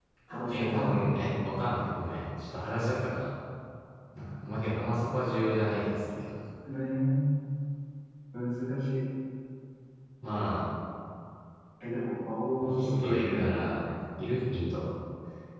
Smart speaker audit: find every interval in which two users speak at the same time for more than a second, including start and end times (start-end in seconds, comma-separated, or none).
12.6-13.9